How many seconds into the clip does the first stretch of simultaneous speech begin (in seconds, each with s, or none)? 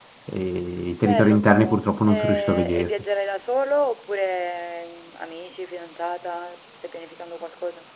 1.0 s